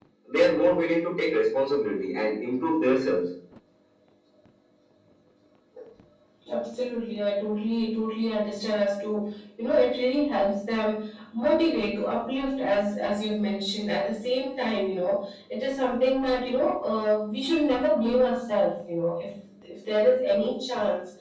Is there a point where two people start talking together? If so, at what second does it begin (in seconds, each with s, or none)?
none